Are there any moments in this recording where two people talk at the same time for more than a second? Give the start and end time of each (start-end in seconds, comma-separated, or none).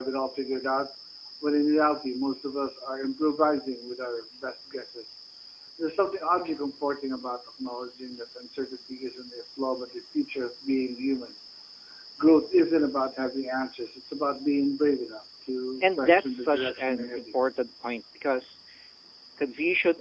16.0-17.2